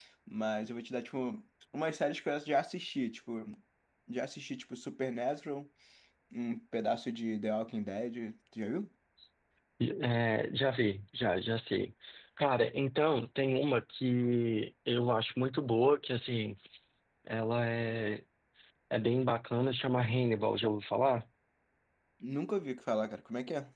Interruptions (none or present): none